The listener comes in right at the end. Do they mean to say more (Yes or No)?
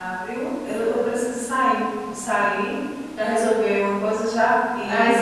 Yes